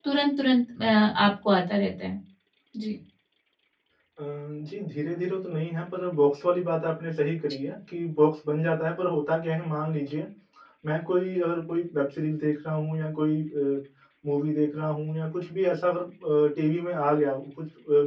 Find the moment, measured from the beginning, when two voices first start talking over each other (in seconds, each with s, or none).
none